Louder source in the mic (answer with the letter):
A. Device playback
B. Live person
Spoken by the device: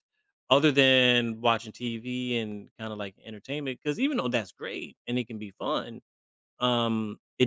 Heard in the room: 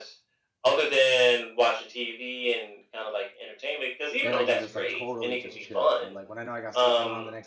A